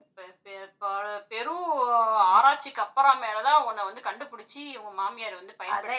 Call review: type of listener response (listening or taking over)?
taking over